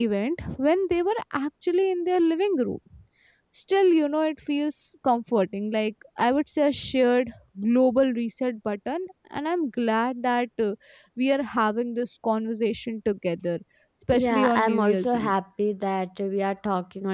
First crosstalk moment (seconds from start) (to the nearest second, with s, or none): 14 s